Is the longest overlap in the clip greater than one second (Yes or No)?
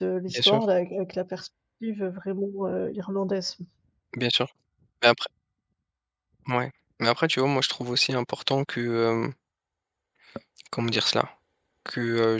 No